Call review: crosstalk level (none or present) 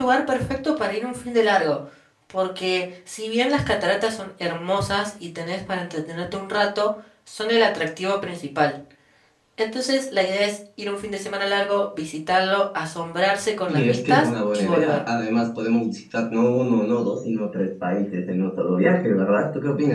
present